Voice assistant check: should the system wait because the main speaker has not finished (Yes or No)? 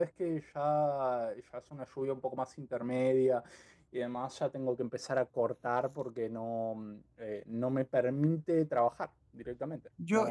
No